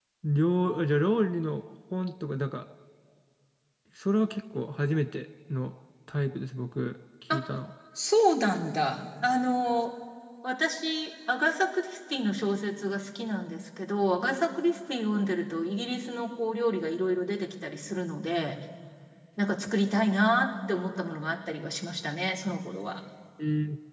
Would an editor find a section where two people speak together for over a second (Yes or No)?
No